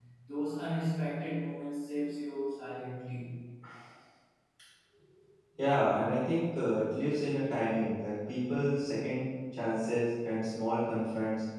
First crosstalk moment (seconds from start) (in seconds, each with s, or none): none